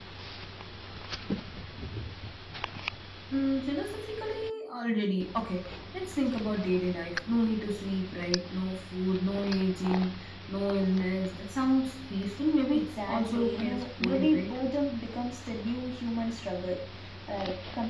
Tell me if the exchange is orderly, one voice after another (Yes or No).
No